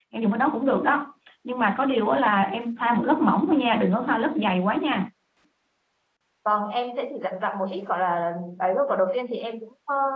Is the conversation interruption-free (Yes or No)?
Yes